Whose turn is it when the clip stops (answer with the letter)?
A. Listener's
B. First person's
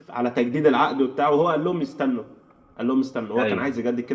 B